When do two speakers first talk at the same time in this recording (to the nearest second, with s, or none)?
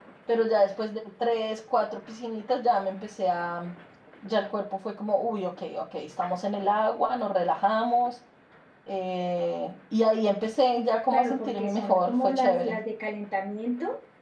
11 s